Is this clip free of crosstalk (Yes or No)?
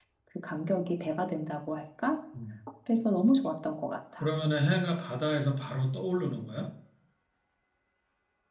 Yes